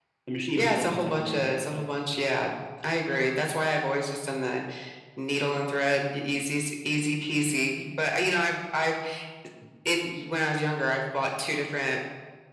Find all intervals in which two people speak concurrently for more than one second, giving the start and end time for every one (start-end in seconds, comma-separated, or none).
0.5-1.9